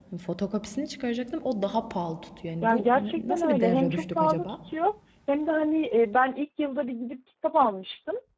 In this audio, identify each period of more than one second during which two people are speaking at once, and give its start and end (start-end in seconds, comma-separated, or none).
2.6-4.5